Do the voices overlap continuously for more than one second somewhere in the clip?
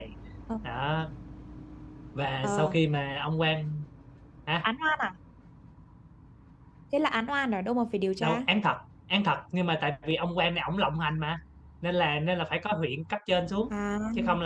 No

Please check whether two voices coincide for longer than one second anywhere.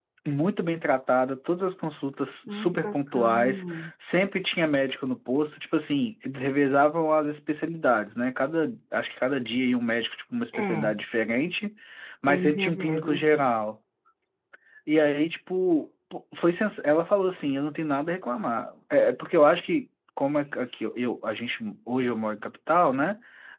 Yes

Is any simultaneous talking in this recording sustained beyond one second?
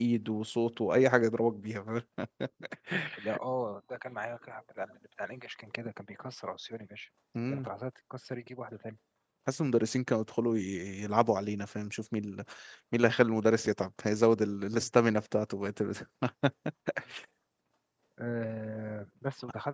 No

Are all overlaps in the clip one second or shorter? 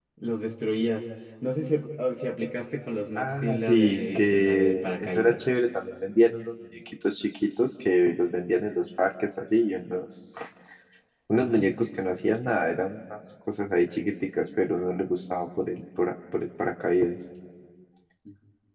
No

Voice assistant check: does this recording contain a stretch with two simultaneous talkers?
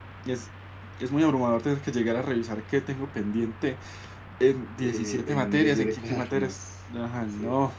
Yes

